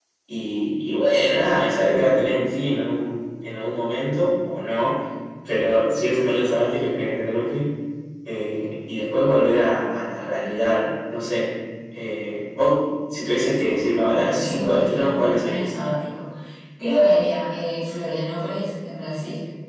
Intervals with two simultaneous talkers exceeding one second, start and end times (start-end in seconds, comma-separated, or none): 14.1-15.6